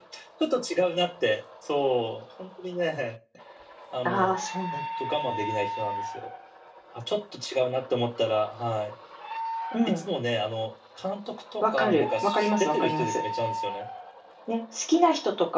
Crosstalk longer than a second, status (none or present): present